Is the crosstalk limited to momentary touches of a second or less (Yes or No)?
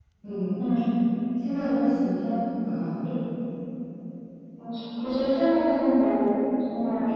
Yes